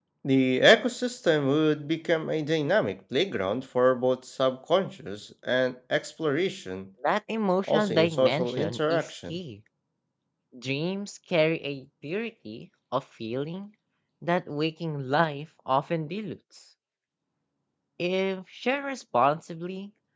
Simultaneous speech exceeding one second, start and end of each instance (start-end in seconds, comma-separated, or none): 7.6-9.4